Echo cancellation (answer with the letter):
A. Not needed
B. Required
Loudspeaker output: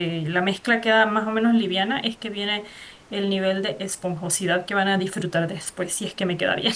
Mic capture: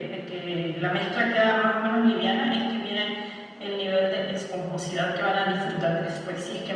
B